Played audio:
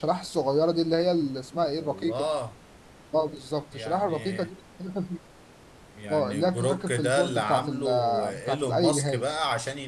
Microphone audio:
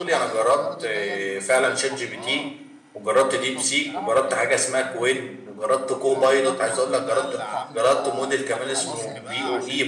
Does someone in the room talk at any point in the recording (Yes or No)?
Yes